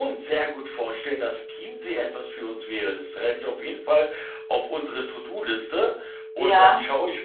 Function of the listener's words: listening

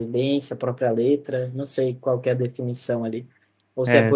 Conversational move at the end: listening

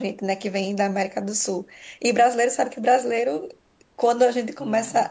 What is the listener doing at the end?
listening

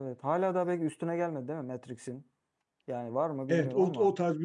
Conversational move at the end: taking over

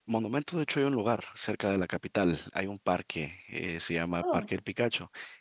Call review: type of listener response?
listening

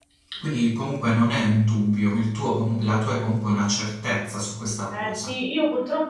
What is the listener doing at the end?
taking over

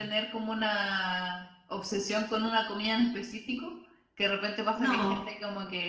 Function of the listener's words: listening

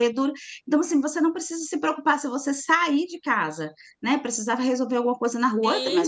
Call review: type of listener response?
listening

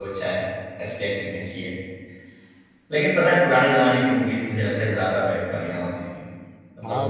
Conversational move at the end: taking over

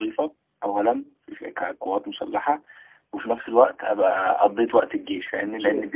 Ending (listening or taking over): taking over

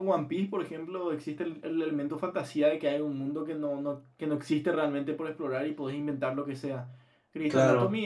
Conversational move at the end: listening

